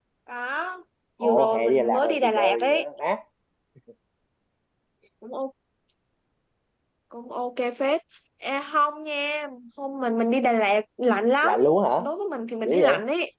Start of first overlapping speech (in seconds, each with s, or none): 1.2 s